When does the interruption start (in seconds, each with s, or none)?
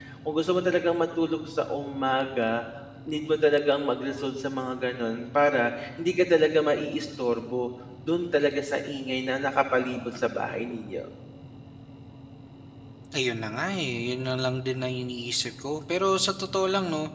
none